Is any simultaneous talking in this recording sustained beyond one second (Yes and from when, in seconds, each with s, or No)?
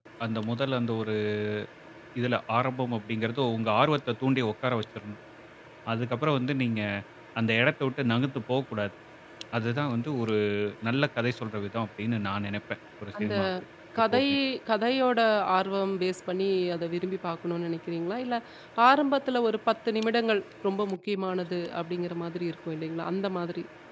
No